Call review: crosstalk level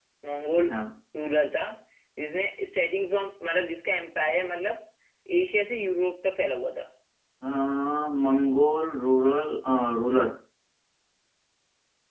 none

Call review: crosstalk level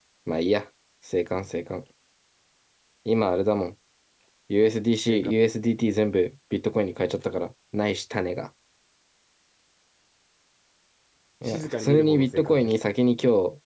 present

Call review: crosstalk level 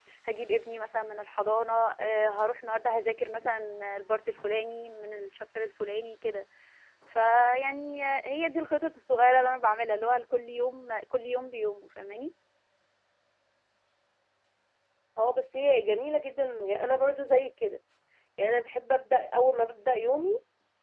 none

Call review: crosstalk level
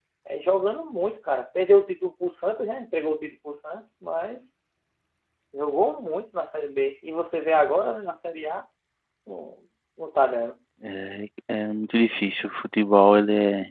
none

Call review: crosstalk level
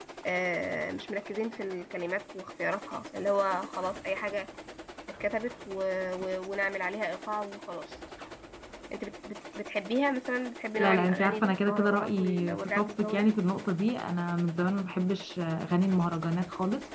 present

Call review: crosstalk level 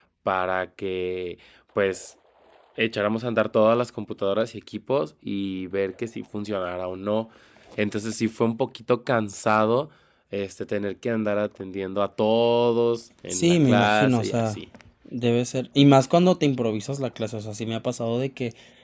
present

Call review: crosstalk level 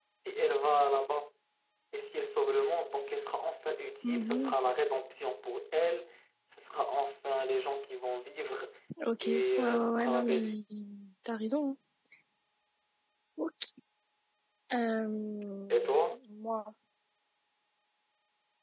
present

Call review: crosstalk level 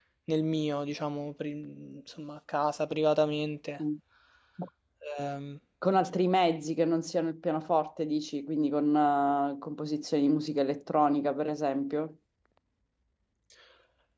none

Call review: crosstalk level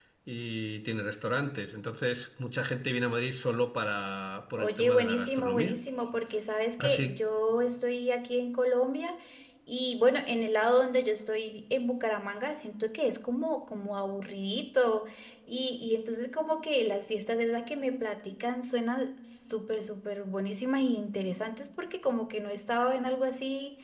present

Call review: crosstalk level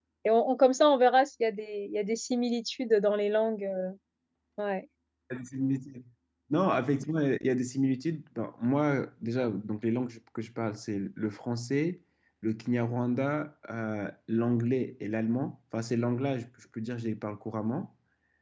none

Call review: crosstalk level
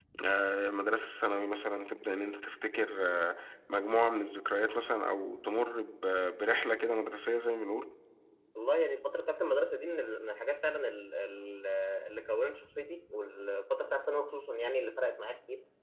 none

